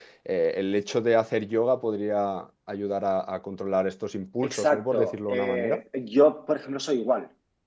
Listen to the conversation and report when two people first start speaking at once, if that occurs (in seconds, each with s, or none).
4.4 s